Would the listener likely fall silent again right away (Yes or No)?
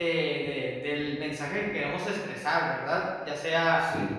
Yes